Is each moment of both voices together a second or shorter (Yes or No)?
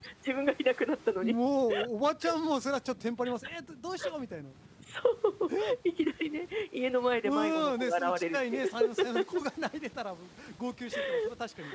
No